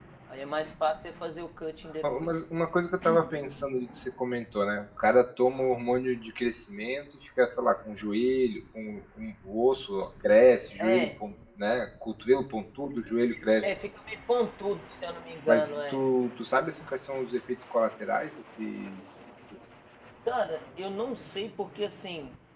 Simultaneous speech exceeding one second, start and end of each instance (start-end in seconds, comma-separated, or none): none